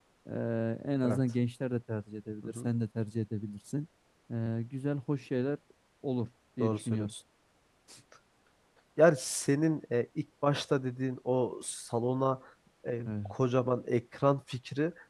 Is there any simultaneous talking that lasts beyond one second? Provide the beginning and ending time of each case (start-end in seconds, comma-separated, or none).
none